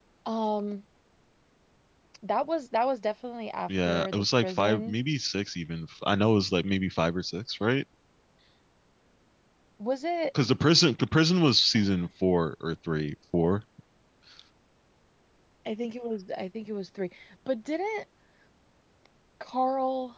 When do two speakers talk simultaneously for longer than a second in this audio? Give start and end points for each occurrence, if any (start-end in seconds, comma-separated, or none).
3.7-5.0